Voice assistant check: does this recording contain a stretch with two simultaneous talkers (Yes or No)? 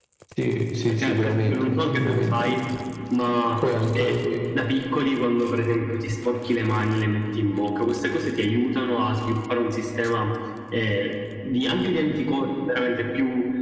Yes